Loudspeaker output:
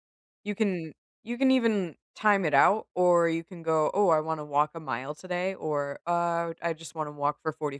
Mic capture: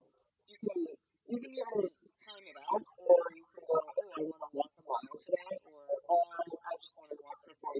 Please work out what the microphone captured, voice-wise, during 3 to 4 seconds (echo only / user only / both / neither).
echo only